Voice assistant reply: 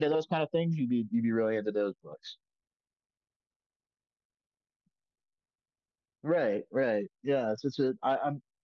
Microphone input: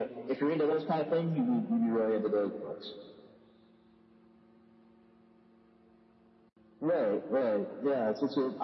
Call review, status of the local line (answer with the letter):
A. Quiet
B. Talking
A